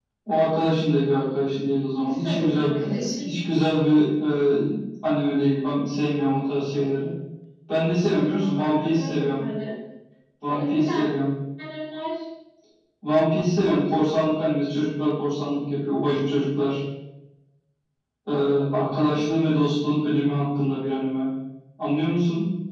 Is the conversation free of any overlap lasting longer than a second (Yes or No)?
No